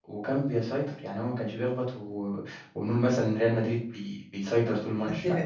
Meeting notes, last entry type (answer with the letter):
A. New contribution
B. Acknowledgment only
A